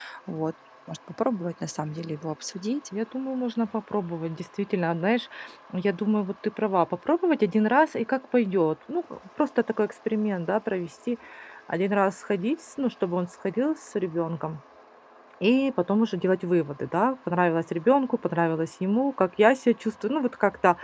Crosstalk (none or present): none